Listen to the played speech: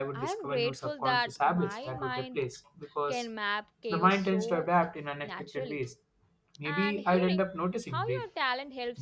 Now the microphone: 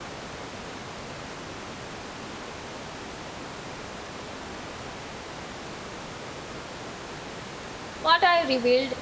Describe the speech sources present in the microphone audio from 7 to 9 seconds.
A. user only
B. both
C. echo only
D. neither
A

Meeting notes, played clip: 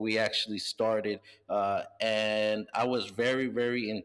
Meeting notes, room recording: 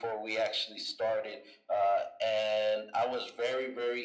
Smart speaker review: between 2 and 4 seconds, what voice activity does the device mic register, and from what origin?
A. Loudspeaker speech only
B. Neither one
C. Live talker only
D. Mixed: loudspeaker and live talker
A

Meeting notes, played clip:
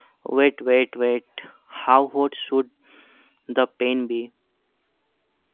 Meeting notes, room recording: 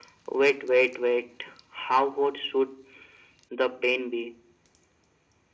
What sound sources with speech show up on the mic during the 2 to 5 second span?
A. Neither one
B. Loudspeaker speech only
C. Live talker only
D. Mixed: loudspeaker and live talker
B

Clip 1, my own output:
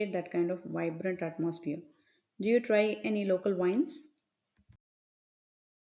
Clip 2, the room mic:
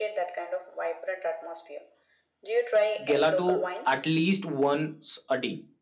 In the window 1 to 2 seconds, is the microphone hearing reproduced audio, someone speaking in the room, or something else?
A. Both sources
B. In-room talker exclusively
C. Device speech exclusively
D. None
C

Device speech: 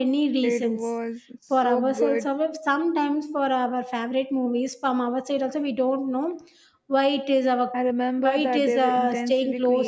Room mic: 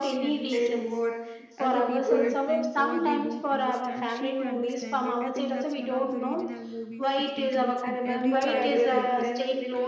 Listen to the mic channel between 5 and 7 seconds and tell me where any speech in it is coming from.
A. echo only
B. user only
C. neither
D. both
D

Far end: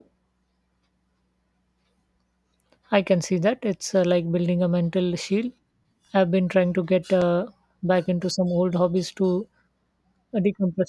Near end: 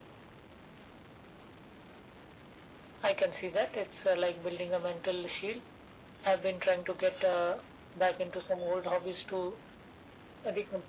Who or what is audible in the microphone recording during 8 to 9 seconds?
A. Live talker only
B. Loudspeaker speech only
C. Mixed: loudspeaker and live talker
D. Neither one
B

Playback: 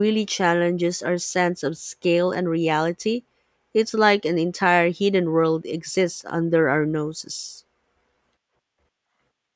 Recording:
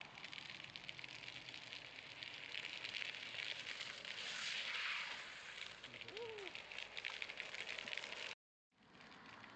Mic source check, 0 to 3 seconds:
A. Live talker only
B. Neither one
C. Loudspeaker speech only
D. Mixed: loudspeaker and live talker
B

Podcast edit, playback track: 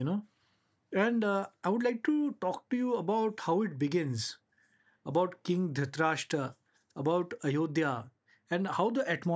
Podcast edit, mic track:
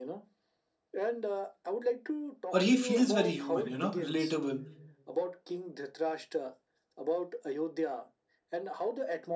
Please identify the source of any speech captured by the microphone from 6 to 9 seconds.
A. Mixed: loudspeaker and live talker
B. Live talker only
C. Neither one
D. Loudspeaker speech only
D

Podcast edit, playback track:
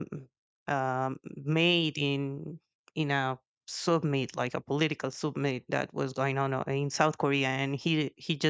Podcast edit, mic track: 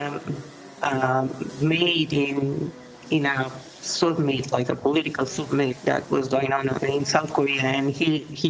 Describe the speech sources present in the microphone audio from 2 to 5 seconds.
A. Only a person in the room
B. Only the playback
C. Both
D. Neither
B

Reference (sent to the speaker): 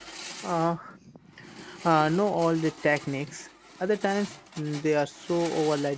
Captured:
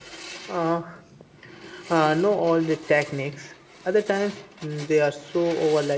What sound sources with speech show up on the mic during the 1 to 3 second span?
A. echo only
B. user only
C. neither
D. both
A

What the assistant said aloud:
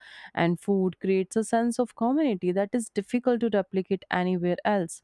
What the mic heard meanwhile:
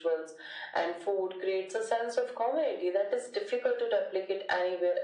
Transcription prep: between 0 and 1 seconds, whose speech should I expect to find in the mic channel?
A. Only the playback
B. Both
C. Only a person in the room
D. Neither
A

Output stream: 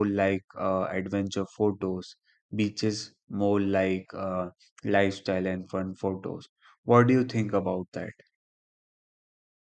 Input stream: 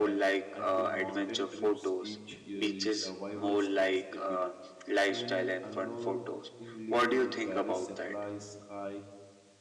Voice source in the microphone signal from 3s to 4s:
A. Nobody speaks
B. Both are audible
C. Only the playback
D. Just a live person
B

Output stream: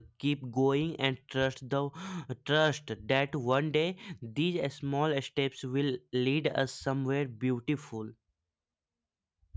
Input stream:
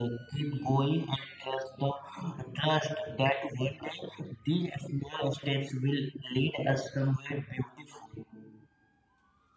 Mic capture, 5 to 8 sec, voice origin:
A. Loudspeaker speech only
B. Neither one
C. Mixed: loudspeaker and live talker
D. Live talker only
A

